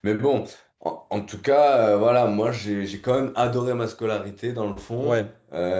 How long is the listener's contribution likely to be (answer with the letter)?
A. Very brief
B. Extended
A